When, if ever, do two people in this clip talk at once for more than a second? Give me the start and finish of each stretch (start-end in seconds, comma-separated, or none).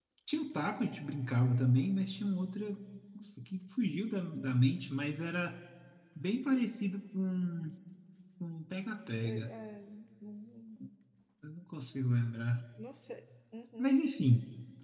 none